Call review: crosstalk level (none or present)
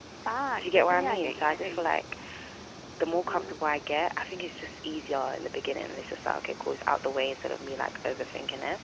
present